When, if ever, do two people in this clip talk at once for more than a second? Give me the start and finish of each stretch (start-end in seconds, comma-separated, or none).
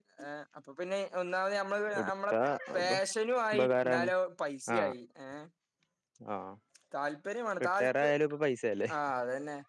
none